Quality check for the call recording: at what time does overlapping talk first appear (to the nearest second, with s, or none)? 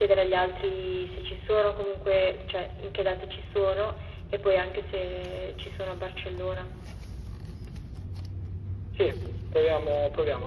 none